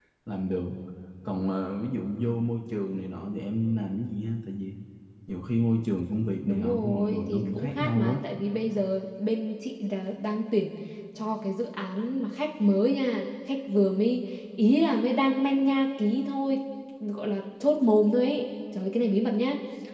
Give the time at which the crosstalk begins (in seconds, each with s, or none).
6.5 s